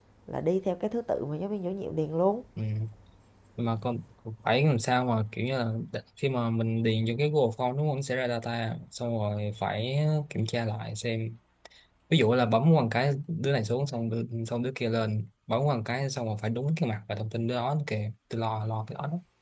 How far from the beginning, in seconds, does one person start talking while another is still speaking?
none

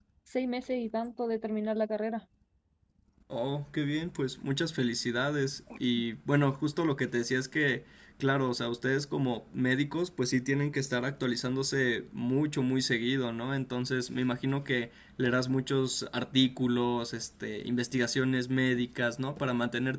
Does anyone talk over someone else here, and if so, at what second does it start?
none

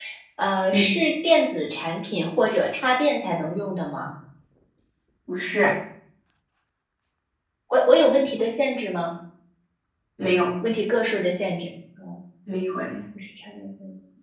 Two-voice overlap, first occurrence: none

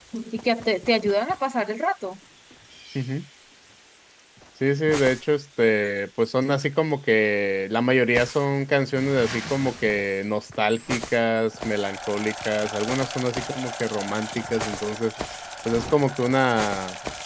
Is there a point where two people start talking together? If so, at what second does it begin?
none

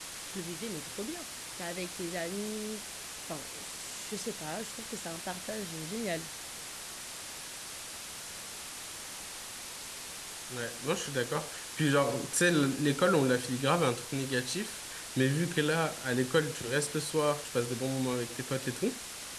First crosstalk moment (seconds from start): none

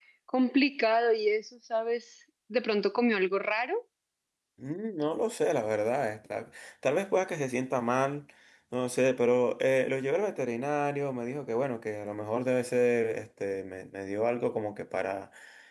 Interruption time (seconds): none

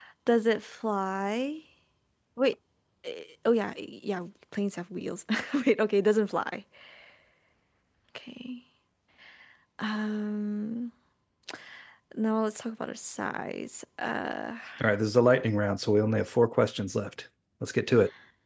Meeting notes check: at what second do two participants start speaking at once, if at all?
none

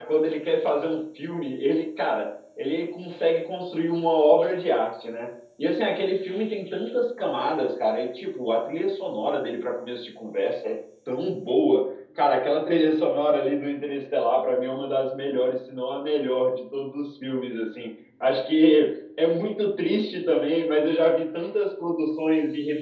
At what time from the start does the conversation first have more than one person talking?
none

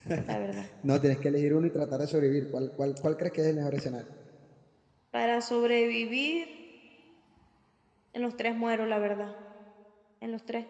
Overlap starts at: none

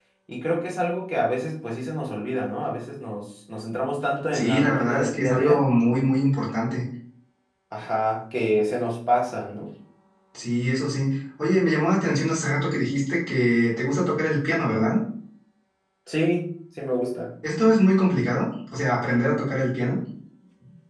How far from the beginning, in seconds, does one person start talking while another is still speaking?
4.3 s

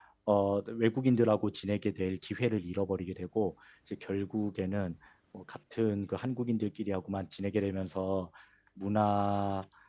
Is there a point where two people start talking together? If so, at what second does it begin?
none

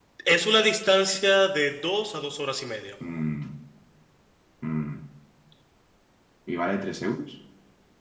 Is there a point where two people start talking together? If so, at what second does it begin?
none

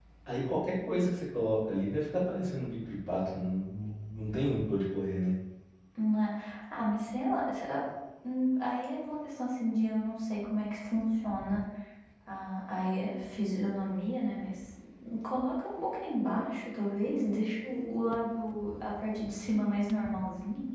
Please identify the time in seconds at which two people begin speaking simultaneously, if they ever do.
none

